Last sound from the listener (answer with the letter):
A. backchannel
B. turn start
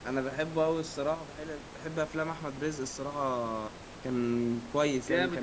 B